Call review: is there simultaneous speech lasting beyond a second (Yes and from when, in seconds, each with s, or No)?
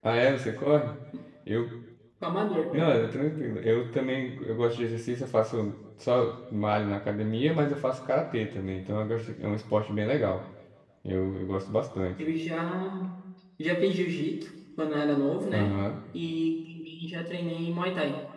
No